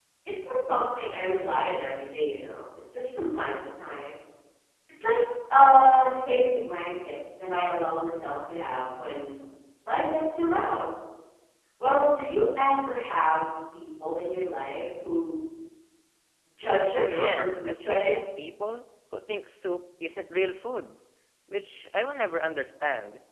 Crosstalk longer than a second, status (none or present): present